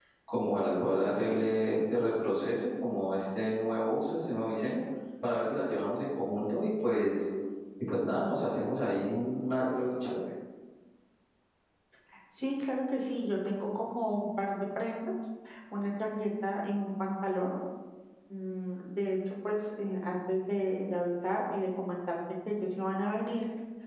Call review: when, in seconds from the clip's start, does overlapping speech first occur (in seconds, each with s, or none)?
none